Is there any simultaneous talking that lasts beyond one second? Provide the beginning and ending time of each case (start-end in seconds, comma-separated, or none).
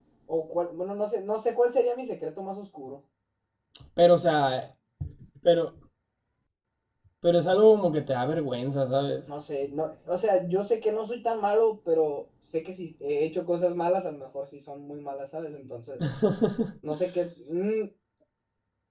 none